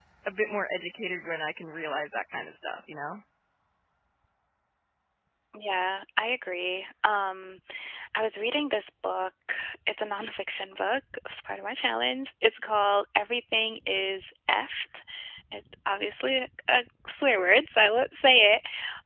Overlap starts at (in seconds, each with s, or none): none